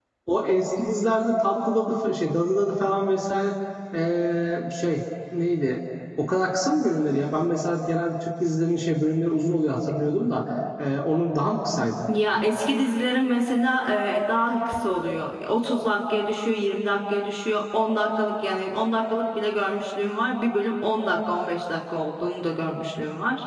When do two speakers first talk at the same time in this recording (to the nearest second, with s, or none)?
none